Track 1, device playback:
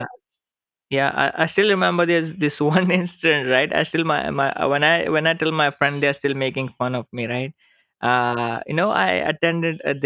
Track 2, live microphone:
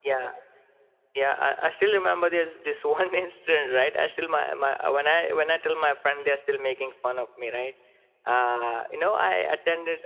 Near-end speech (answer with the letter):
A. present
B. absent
B